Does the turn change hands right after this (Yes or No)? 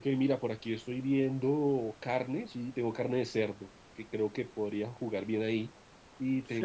Yes